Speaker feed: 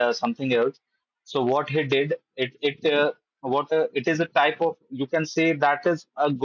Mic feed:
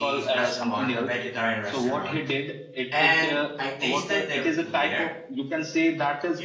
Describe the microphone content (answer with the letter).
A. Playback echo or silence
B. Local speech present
B